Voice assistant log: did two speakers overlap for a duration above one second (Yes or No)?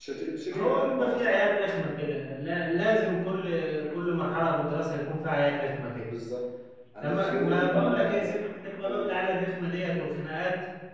Yes